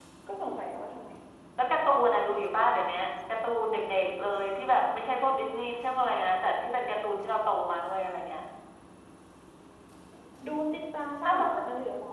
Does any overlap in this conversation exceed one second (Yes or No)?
No